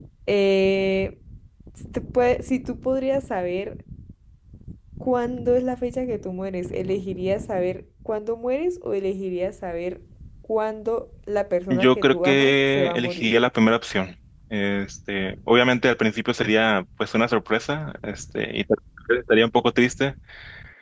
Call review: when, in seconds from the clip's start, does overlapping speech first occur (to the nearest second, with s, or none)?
12 s